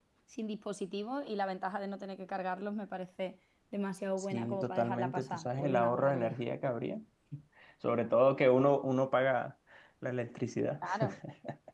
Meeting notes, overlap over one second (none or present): present